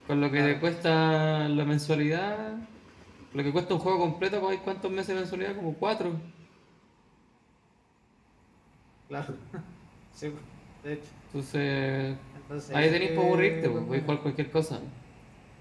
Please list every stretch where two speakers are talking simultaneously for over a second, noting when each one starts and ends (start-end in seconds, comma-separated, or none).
12.7-14.2